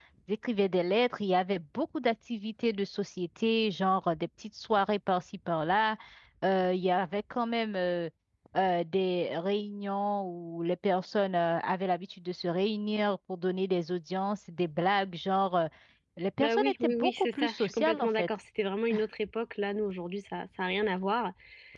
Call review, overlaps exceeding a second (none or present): present